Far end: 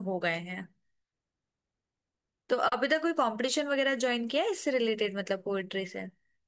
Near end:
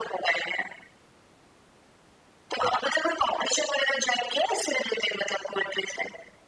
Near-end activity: none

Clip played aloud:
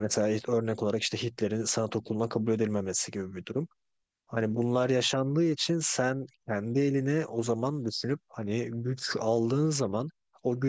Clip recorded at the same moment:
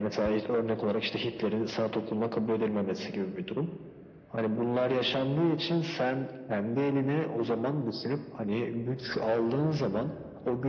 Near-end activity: none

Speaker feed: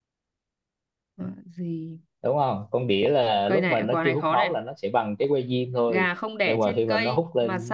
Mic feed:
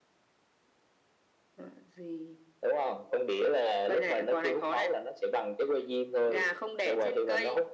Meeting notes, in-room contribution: none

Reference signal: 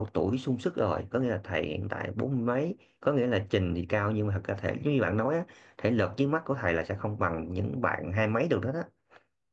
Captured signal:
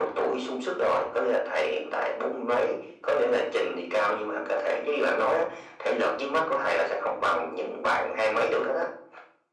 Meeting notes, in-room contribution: none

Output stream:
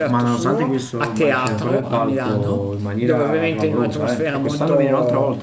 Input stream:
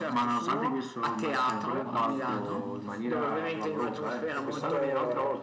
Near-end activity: present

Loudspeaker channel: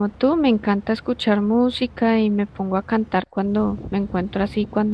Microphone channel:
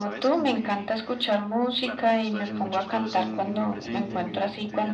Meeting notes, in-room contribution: present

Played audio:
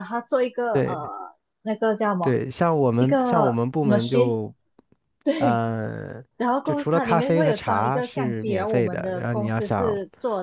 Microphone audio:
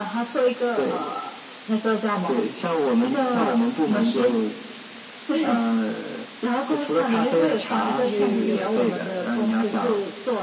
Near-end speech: present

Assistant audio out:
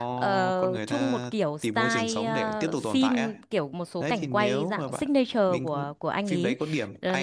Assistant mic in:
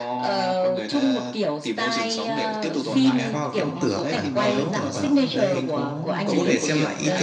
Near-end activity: present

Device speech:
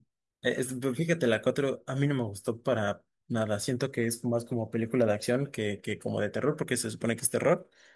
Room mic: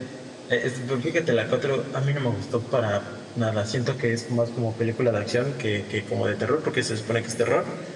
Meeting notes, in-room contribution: none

